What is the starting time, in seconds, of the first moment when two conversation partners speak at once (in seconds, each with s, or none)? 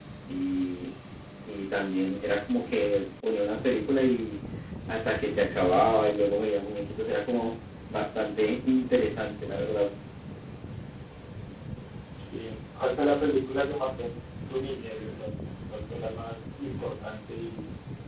none